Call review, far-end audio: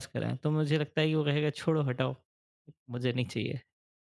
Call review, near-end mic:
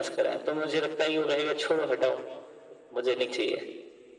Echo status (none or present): present